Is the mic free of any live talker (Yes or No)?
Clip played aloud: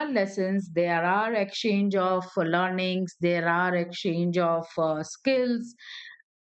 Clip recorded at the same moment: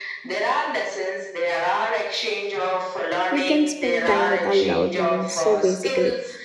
No